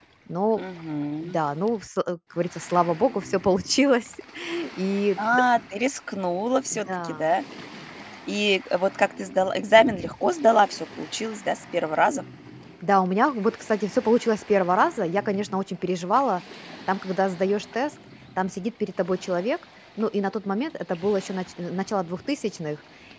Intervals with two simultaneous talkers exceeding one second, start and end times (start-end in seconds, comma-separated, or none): none